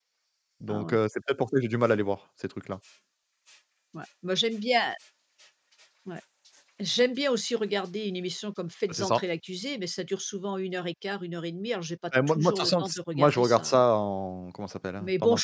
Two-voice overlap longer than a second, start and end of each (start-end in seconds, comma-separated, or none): 12.3-13.8